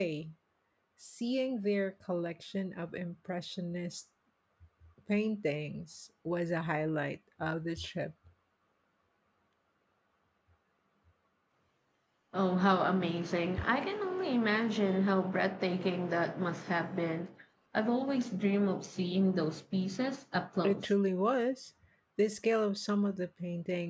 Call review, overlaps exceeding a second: none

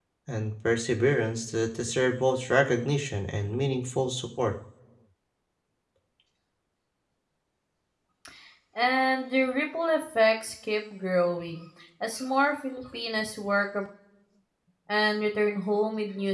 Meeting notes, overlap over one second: none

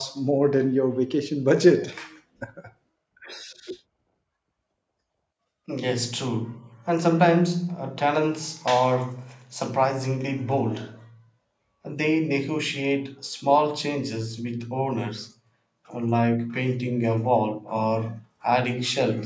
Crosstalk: none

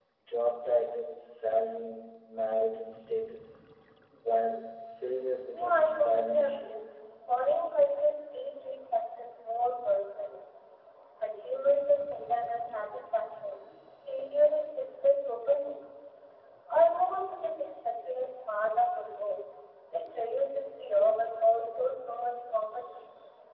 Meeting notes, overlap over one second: present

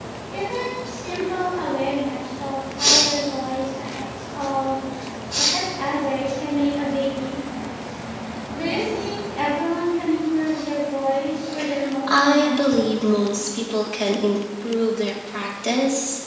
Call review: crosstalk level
present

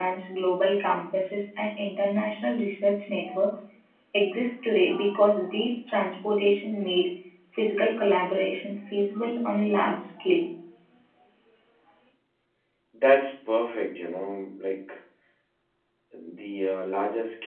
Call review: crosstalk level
none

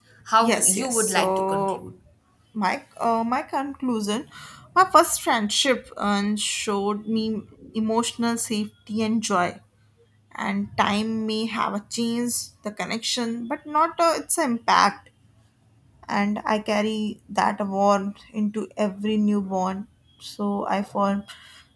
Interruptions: present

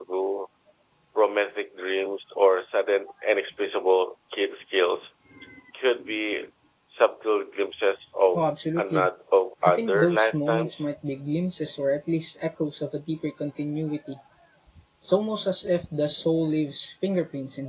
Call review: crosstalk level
present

